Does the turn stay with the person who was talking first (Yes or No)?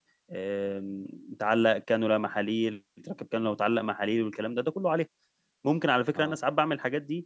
Yes